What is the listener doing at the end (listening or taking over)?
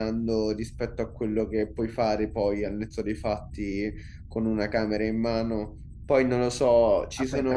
taking over